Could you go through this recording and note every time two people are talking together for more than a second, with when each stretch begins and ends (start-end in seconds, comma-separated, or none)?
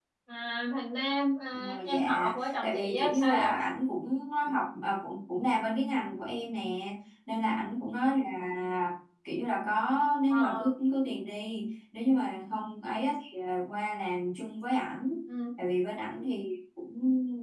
1.7-3.5